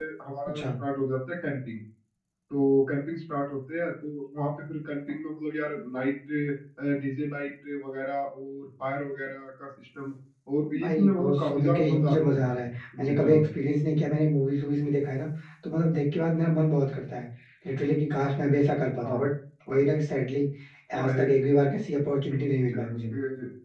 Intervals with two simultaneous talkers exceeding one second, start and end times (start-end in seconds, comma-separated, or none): 10.8-12.5